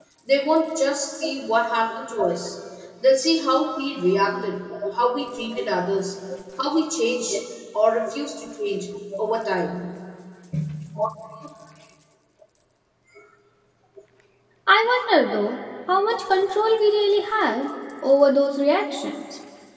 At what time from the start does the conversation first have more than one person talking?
none

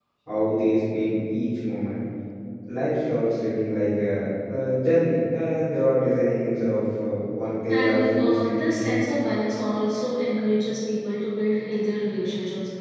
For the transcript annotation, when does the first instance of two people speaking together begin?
7.7 s

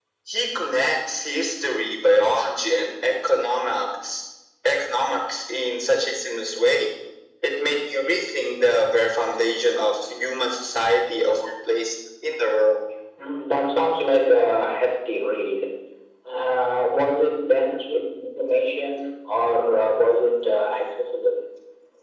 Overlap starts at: none

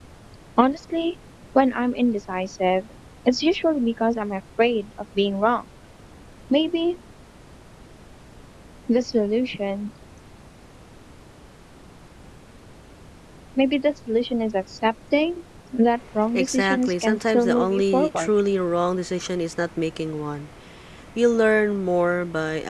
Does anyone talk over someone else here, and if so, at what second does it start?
16.3 s

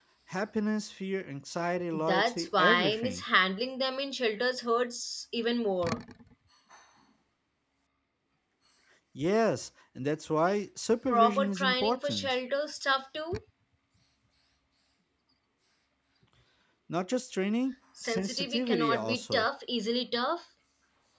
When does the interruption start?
1.9 s

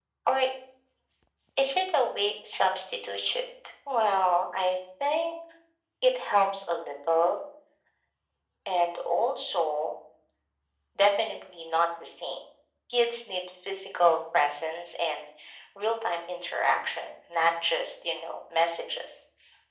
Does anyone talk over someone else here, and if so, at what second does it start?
none

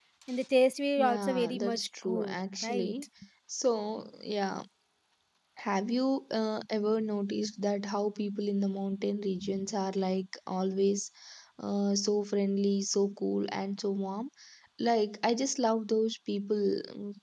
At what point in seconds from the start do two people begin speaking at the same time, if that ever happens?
1.0 s

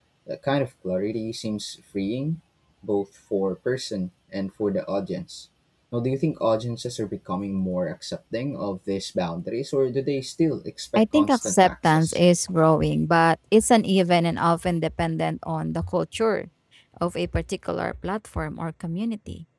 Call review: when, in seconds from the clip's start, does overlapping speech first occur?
11.0 s

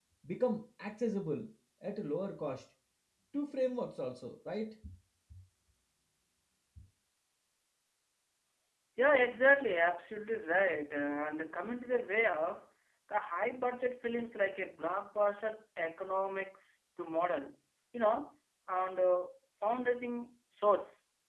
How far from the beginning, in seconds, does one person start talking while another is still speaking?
none

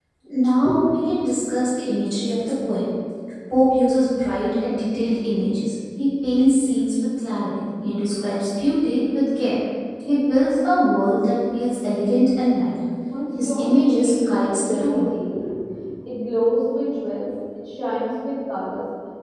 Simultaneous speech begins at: 13.4 s

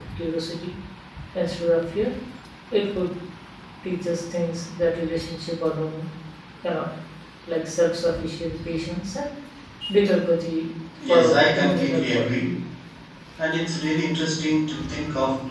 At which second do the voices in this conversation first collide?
11.0 s

